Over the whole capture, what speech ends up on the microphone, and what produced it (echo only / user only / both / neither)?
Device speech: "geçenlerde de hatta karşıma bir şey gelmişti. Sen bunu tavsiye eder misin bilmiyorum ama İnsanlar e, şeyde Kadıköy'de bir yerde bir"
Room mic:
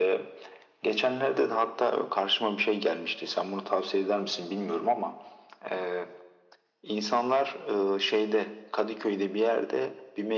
echo only